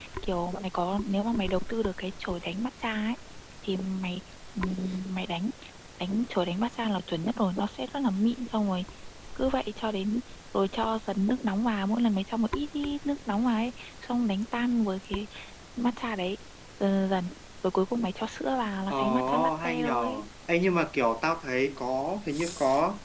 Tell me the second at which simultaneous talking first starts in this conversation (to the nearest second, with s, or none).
19 s